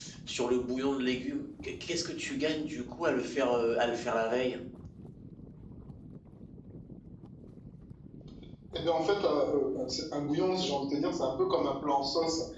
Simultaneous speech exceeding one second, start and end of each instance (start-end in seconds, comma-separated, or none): none